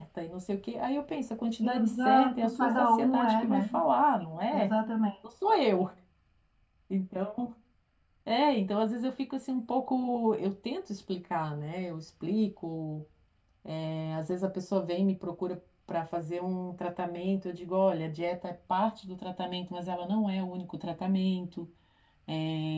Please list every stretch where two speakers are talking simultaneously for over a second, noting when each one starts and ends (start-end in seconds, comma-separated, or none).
1.6-3.6